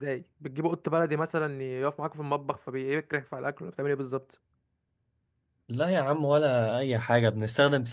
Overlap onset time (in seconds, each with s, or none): none